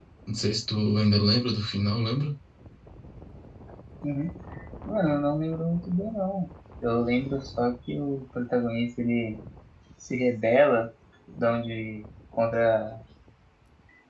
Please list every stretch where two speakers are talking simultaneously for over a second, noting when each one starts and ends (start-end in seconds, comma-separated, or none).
none